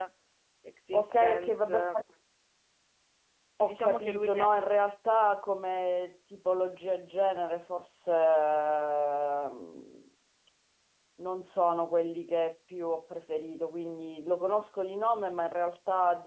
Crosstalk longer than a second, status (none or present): present